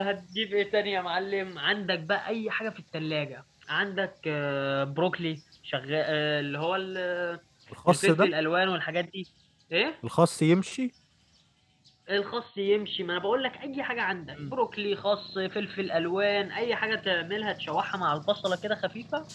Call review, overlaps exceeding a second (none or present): none